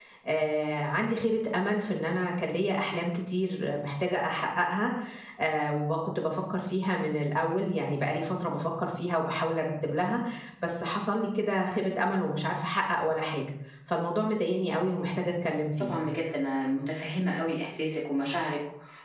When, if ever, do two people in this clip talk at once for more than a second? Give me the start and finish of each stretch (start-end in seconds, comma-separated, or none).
none